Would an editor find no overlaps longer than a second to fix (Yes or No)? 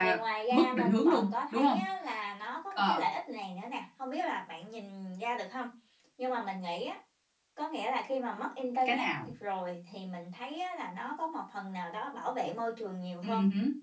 No